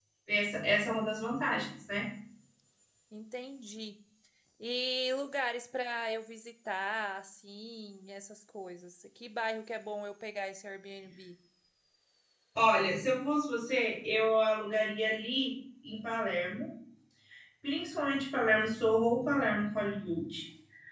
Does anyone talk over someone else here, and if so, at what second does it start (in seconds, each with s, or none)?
none